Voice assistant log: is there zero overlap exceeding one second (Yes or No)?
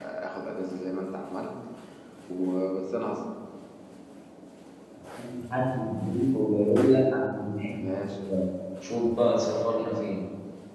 Yes